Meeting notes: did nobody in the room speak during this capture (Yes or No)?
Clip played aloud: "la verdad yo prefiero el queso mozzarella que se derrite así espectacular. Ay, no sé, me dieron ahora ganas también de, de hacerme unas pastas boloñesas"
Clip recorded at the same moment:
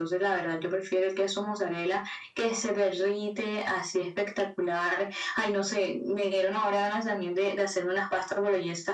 Yes